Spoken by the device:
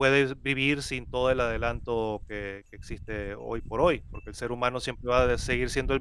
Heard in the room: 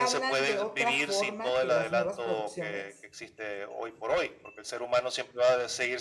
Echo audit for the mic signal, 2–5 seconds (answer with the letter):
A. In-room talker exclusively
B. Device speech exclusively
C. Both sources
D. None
C